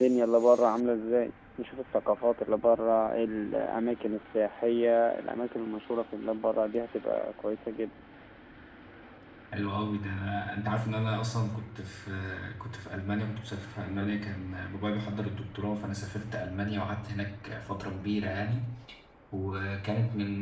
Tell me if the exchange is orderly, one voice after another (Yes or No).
Yes